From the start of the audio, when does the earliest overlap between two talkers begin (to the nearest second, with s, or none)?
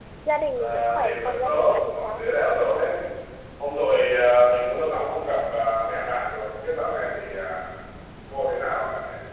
1 s